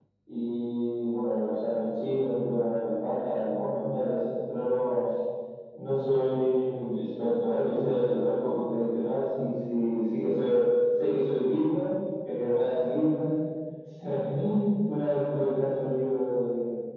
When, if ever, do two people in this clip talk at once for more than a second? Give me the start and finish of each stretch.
none

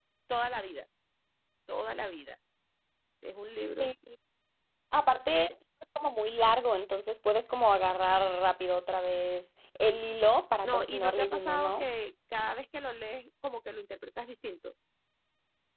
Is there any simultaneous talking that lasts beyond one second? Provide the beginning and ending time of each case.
10.6-11.8

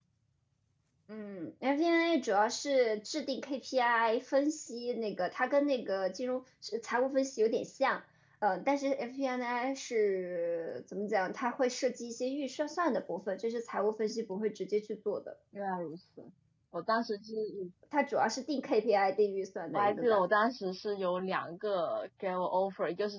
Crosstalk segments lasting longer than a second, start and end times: none

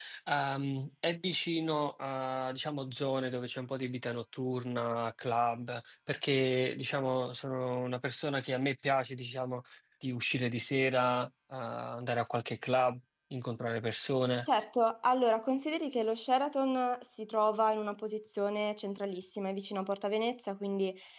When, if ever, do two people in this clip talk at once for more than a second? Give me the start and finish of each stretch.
none

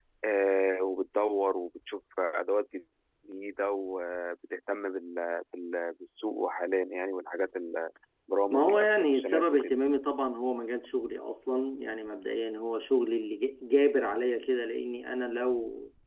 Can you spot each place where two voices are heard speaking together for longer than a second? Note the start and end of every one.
8.5-9.8

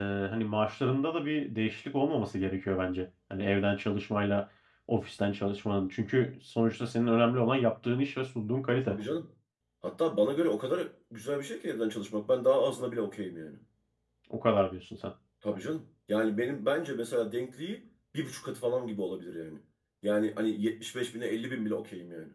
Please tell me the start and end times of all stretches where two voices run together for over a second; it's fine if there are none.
none

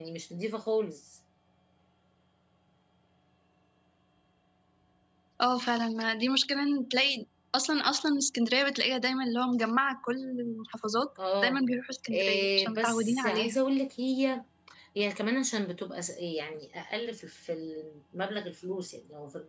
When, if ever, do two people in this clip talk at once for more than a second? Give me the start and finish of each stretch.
12.1-13.6

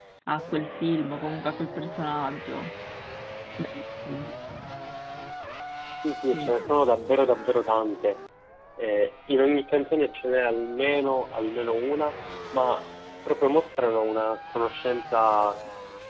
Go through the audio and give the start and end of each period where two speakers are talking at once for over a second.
none

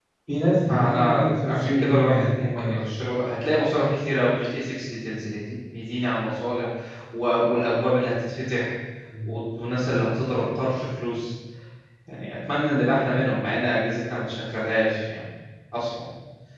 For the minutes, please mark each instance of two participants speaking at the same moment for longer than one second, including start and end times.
0.6-2.9

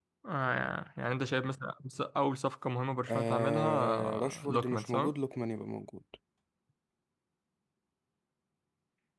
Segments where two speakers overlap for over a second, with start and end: 3.1-5.1

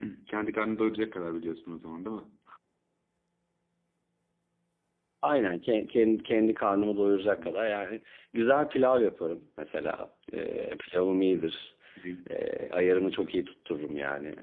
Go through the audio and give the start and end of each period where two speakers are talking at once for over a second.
none

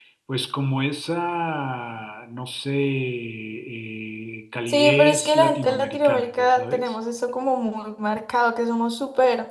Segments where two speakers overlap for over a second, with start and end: 4.7-7.0

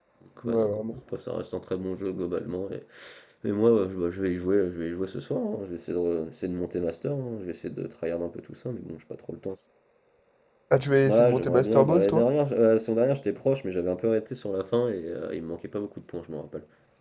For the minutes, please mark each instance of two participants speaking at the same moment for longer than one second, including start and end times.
11.0-12.3

